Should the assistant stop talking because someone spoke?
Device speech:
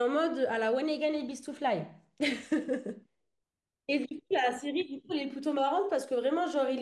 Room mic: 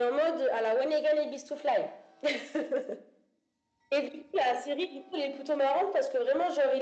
No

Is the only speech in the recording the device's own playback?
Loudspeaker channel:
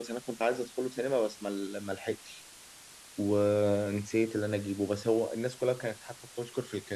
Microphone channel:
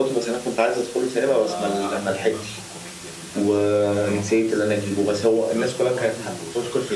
No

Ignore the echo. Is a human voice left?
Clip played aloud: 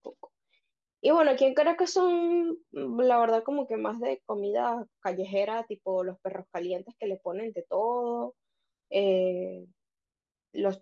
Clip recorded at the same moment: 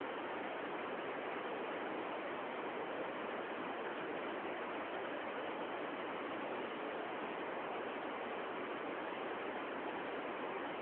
No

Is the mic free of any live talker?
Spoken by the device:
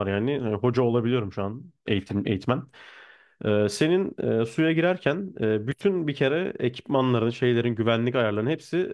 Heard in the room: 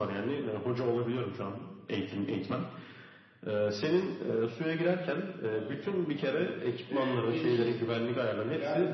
No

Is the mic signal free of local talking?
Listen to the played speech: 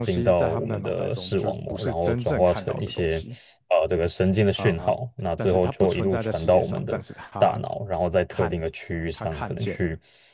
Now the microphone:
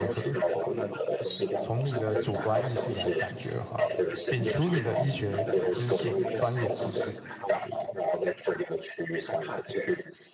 No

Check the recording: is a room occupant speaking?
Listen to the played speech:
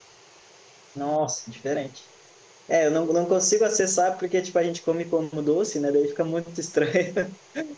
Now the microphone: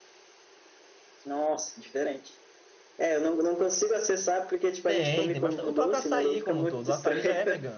Yes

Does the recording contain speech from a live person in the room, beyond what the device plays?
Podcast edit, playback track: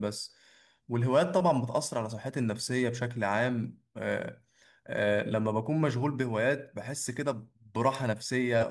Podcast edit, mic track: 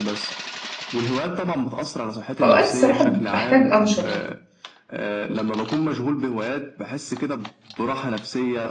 Yes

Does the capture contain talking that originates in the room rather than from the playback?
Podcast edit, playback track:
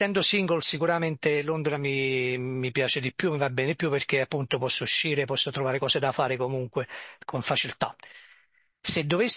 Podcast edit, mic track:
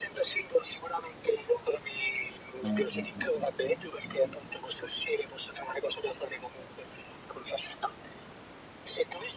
Yes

